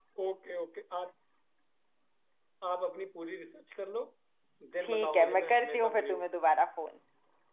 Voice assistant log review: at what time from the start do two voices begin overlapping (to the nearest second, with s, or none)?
5 s